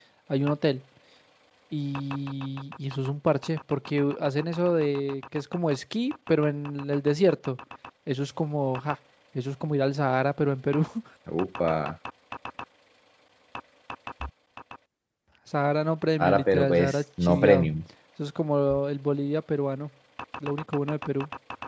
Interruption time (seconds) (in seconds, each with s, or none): 16.2 s